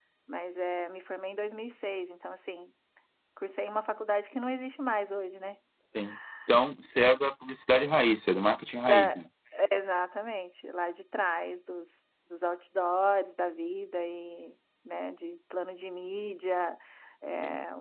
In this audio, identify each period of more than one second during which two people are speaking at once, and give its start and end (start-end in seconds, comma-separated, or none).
none